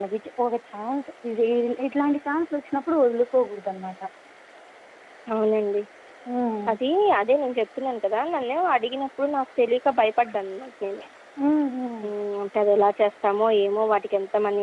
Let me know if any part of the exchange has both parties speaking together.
No

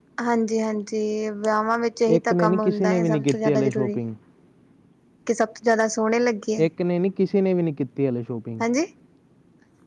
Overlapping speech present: Yes, from 2.1 s

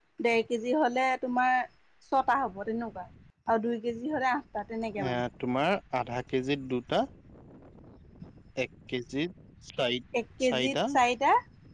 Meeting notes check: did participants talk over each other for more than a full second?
No

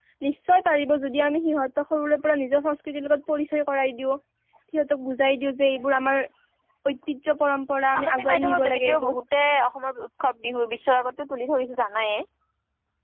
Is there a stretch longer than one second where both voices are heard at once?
Yes, from 7.9 s

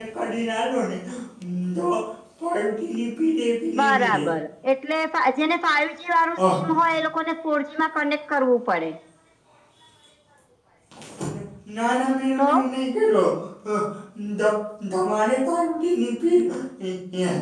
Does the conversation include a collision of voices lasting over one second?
No

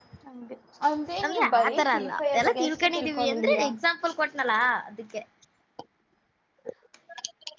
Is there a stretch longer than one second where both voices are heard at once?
Yes, from 1.2 s

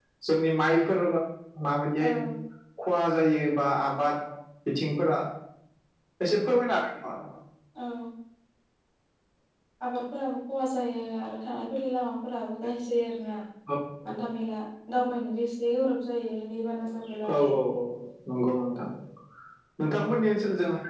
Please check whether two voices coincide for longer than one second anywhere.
No

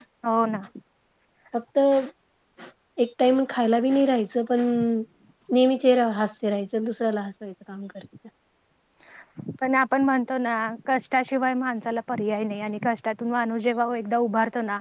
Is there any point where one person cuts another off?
No

